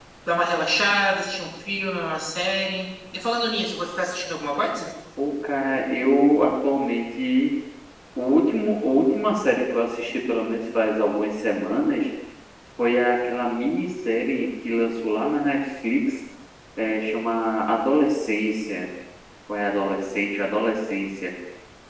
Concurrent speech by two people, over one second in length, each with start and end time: none

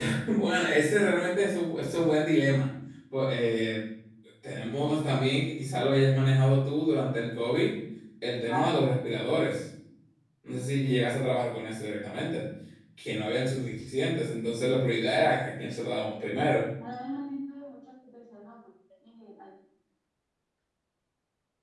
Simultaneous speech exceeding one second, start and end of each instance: none

